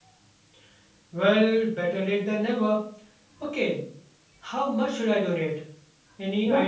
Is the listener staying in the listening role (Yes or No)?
No